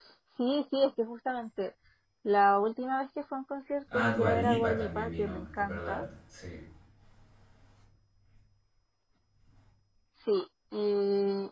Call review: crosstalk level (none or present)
present